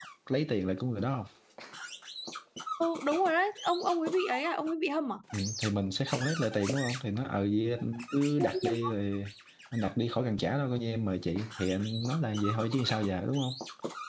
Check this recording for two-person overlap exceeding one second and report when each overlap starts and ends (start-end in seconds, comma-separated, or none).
none